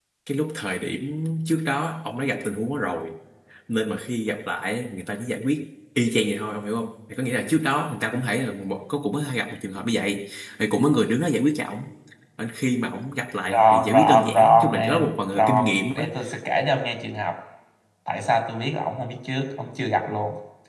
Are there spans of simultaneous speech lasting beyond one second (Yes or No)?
Yes